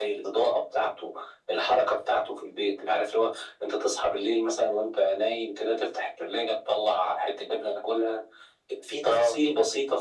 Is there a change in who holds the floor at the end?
No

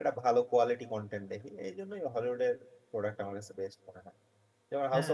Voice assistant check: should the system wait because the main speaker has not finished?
Yes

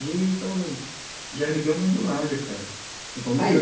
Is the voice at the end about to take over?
No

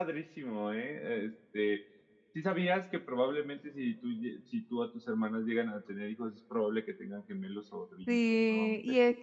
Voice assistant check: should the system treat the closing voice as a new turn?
Yes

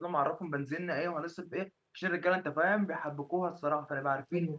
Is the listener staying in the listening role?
Yes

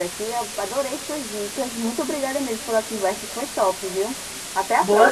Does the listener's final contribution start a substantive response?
Yes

